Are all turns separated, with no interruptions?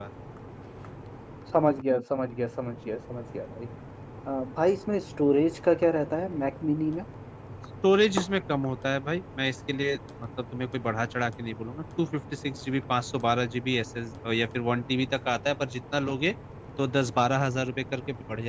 Yes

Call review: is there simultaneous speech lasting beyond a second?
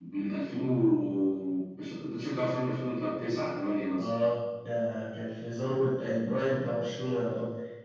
No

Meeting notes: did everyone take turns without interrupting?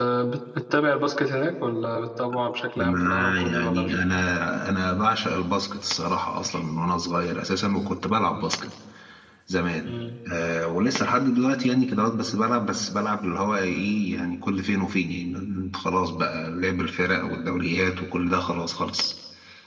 No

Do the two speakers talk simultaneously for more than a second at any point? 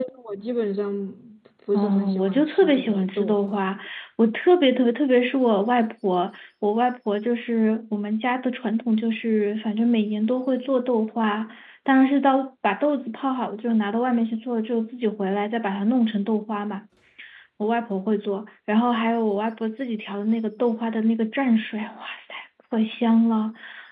Yes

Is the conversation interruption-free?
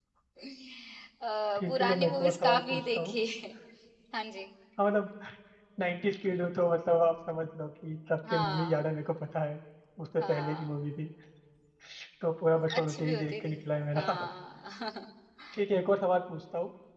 No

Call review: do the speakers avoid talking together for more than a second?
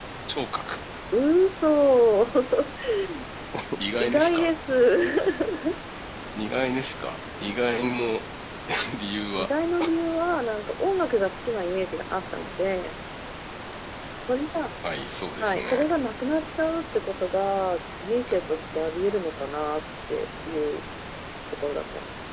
Yes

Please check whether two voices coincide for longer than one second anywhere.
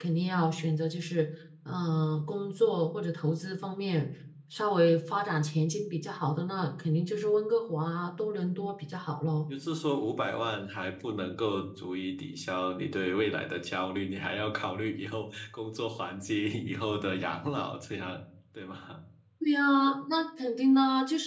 No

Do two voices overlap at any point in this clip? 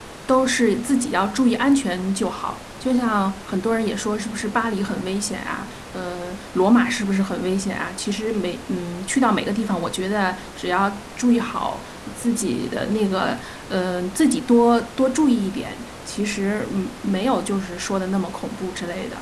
No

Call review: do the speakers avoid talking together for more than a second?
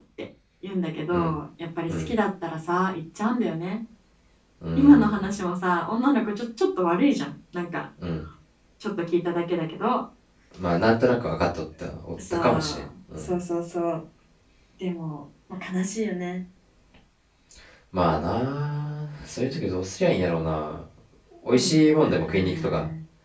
No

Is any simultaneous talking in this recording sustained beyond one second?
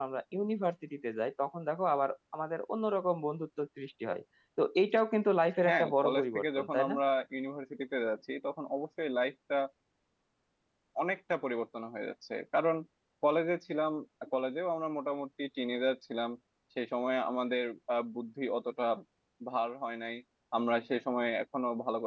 Yes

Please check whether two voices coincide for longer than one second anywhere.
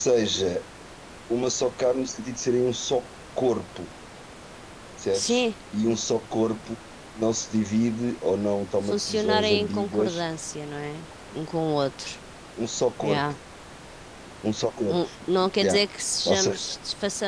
Yes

